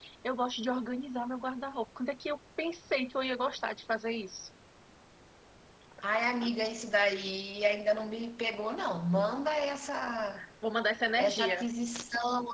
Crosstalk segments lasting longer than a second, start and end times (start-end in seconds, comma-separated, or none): none